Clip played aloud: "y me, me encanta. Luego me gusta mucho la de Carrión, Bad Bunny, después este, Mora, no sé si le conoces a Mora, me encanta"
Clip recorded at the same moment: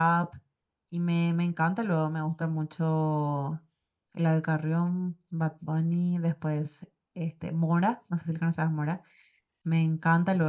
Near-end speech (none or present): none